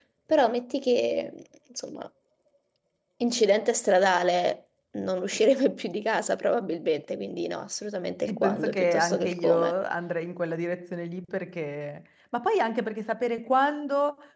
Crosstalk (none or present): present